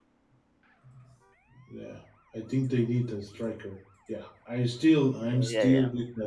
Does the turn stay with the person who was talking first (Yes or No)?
No